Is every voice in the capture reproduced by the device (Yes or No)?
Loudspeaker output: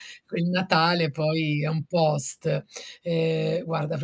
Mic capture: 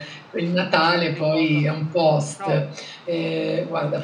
No